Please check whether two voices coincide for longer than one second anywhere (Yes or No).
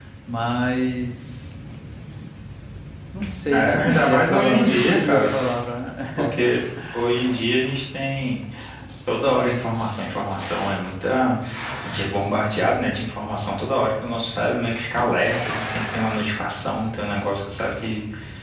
Yes